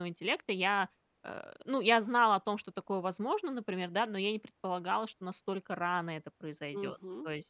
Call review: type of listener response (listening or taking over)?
listening